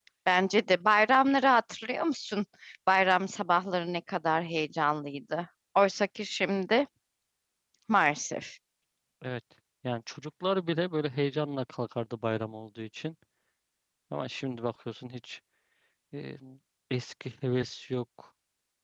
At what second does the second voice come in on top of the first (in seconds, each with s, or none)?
none